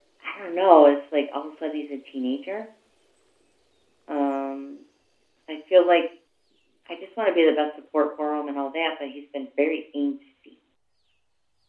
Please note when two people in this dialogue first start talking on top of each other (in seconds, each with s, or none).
none